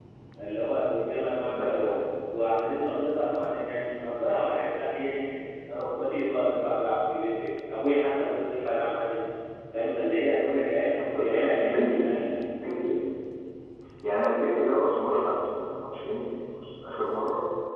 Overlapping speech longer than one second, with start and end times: 11.2-12.4

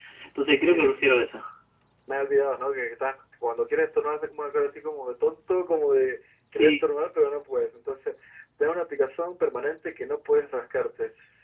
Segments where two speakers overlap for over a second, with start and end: none

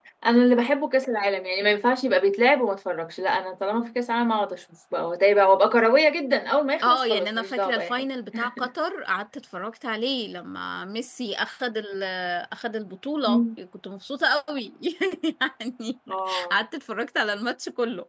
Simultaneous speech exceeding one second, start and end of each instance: 6.8-8.0

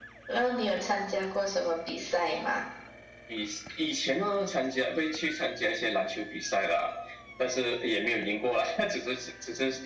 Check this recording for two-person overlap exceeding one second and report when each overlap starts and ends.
none

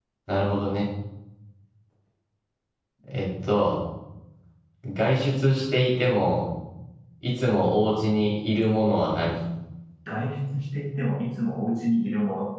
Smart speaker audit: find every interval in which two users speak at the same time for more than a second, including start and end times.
none

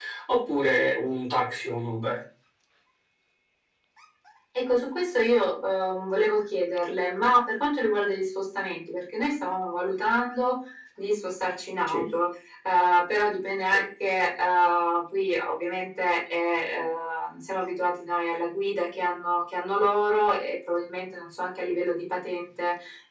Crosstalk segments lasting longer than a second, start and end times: none

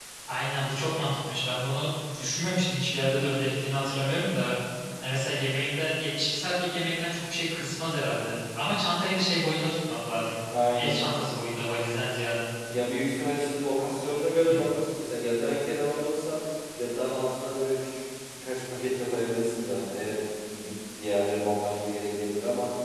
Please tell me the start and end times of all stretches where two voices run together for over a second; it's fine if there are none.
none

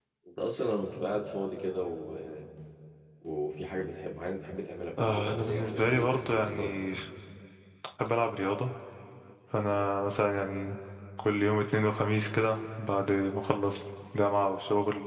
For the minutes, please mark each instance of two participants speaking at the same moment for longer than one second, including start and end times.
5.0-6.7

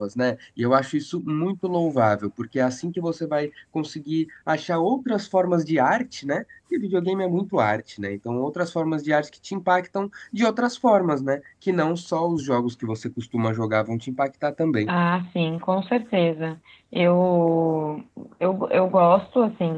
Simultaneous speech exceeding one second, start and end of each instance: none

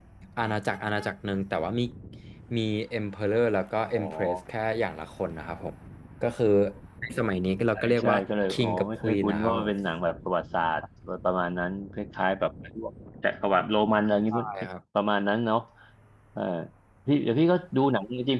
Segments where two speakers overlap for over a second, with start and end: 7.8-9.7

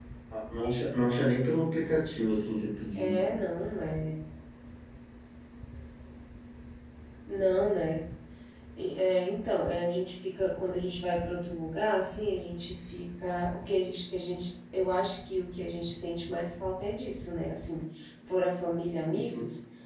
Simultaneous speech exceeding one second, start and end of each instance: none

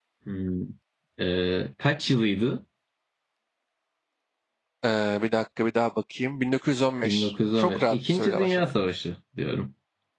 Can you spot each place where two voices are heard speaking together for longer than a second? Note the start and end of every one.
7.0-8.7

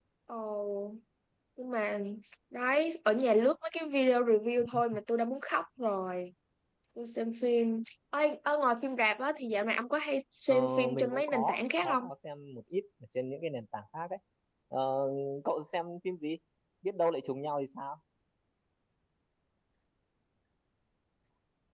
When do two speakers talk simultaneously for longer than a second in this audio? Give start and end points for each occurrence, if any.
10.5-12.0

